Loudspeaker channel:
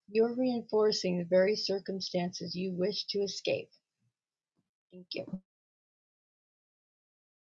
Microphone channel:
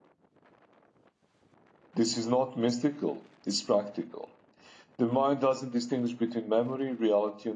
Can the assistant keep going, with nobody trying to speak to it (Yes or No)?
No